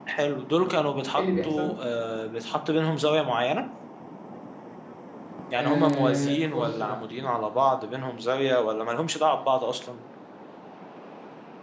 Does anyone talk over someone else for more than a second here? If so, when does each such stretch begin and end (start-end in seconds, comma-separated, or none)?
5.5-6.8